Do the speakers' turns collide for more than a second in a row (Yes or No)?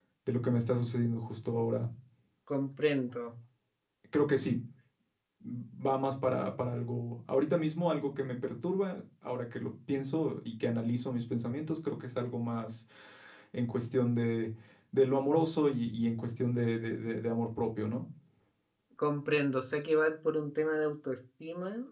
No